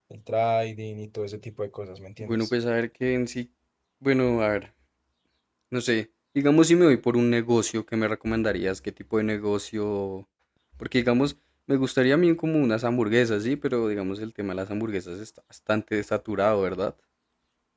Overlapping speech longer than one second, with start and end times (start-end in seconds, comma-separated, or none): none